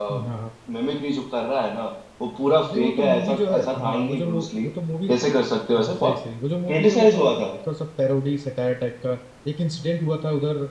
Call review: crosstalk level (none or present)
present